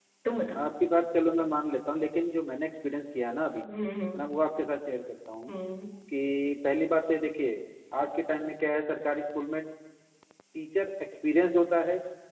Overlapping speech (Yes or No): No